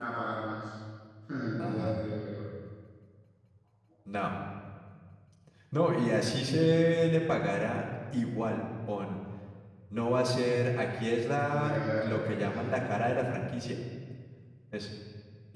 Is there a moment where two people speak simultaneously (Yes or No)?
Yes